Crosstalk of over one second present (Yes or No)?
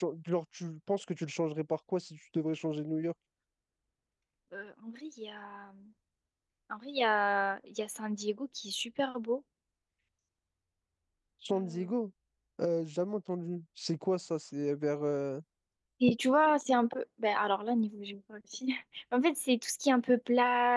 No